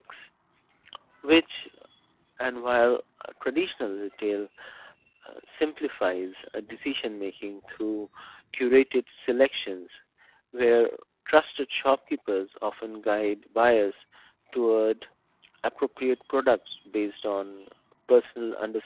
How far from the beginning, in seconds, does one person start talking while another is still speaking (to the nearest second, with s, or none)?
none